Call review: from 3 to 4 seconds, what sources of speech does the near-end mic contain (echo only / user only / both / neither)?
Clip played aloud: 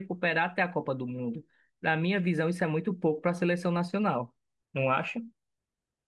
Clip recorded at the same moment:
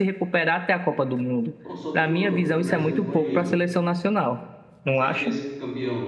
both